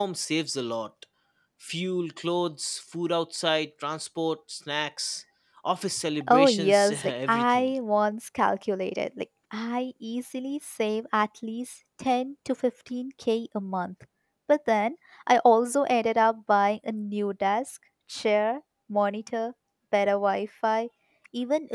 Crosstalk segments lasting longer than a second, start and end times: 6.3-7.7

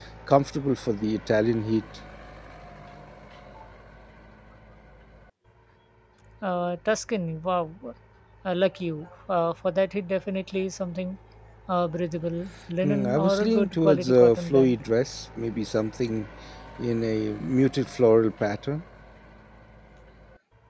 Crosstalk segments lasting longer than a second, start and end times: 12.8-14.8

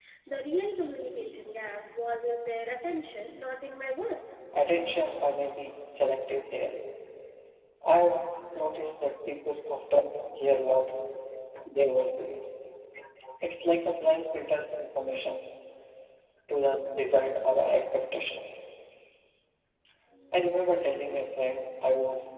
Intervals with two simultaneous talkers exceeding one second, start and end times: none

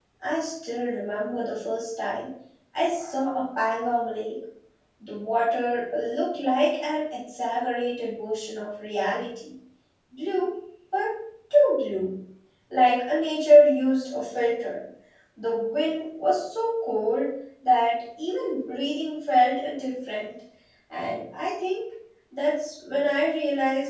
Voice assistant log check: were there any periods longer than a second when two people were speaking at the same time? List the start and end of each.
none

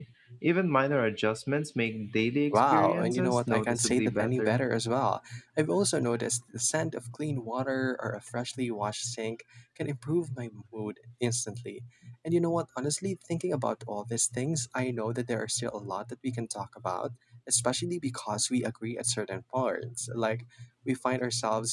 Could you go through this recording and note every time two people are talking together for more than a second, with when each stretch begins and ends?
2.5-4.7

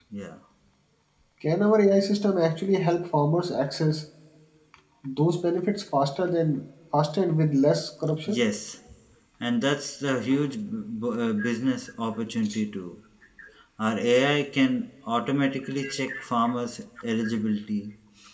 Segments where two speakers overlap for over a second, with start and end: none

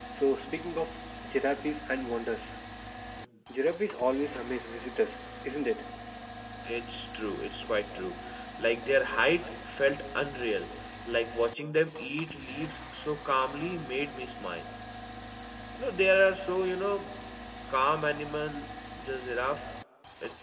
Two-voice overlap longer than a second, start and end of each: none

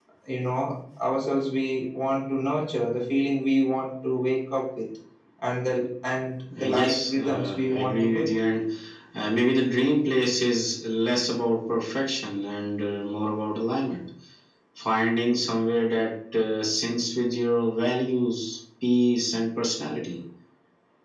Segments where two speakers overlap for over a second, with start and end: 6.6-8.3

